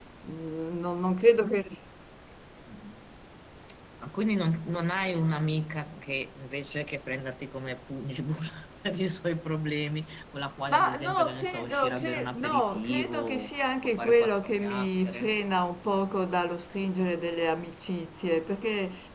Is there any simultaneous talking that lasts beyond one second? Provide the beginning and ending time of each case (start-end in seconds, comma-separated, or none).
10.7-15.3